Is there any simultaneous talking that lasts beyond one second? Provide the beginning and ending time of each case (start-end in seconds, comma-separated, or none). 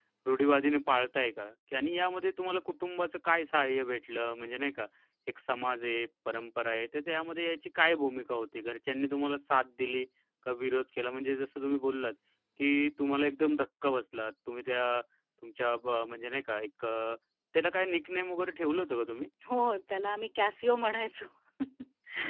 none